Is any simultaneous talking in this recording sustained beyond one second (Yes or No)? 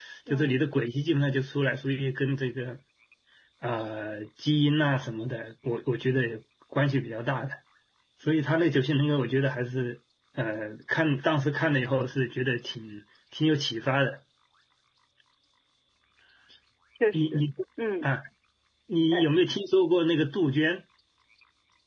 No